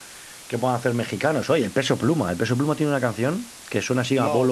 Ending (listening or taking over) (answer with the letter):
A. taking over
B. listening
B